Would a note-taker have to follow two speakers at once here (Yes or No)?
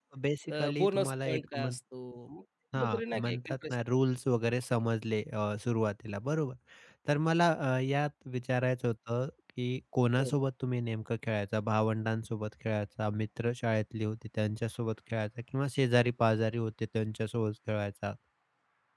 Yes